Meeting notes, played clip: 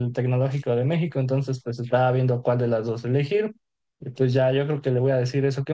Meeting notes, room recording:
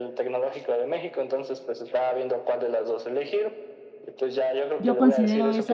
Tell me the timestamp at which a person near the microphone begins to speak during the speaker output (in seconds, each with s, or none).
4.8 s